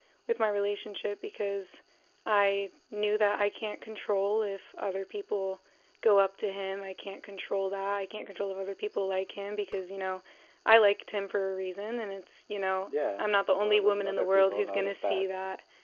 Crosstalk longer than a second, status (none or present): present